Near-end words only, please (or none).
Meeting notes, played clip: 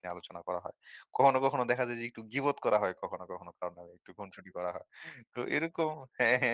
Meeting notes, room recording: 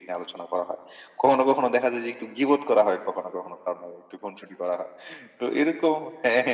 none